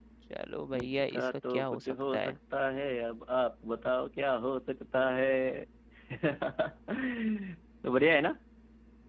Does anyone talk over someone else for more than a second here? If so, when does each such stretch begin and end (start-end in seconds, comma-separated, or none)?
0.8-2.3